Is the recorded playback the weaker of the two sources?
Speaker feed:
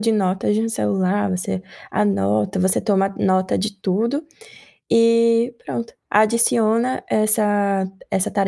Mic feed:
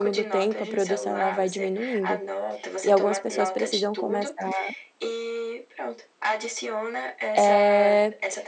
Yes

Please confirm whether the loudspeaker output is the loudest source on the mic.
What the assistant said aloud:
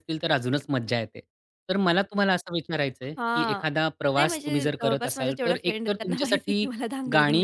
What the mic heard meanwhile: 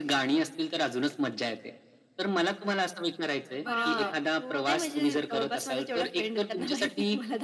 Yes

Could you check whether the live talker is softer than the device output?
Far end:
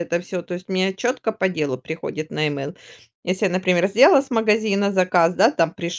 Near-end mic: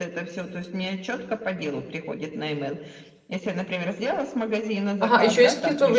No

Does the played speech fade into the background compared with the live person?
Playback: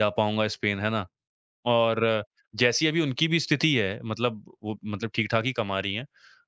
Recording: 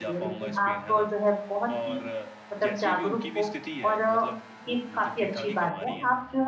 Yes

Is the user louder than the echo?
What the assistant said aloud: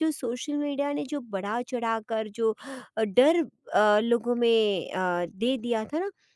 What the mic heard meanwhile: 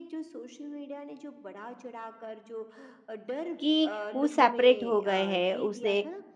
Yes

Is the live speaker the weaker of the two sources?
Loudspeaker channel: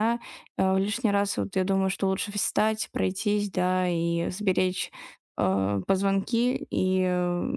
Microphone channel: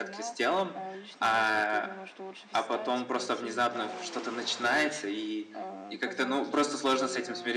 No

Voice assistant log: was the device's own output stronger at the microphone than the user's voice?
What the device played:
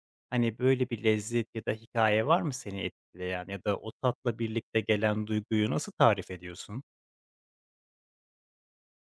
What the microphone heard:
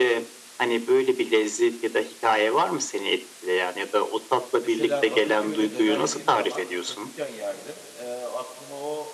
Yes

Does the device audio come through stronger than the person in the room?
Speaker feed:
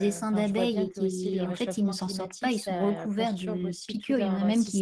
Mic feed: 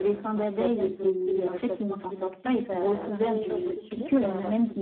Yes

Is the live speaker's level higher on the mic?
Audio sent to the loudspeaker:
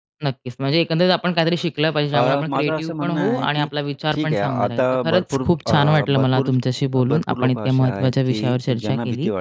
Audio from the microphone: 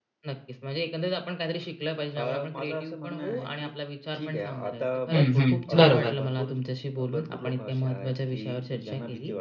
Yes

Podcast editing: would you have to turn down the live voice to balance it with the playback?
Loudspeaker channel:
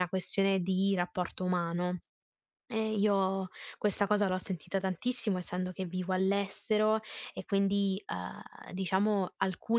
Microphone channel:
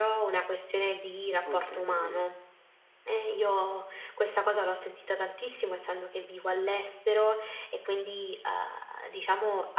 No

